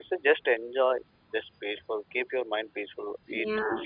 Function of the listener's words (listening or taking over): taking over